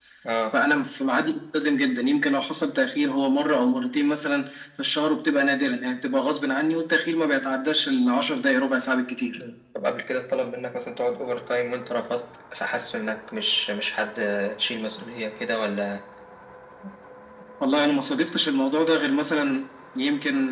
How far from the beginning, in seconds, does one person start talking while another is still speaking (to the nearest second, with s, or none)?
none